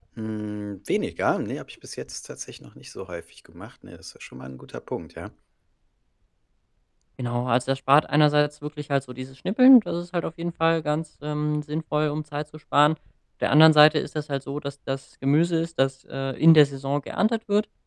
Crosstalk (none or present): none